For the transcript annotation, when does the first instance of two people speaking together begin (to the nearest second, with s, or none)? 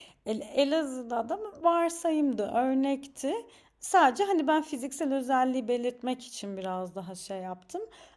none